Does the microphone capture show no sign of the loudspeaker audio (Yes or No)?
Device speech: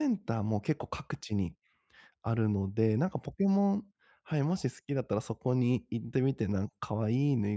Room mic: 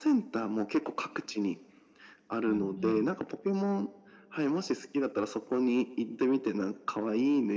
No